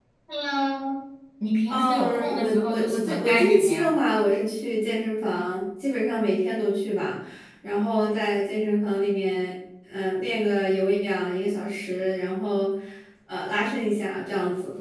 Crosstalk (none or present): present